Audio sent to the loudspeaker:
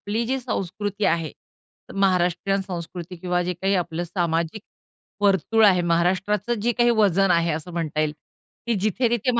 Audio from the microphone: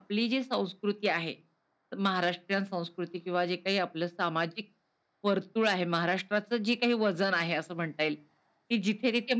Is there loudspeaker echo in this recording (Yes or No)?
Yes